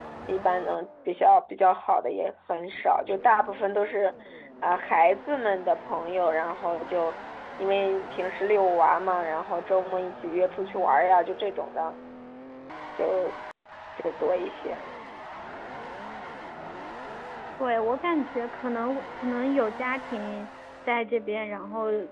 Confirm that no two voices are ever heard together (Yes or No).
Yes